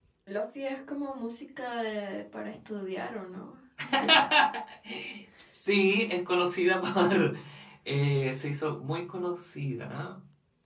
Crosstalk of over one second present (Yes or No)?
No